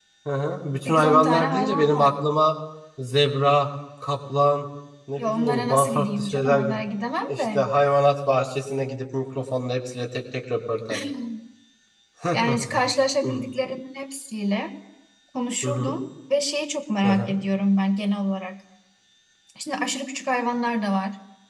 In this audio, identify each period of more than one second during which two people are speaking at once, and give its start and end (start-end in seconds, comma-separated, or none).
0.8-2.1, 5.2-6.8